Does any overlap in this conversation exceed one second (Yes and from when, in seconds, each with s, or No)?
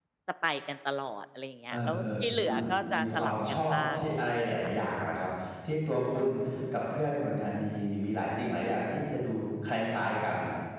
Yes, from 1.7 s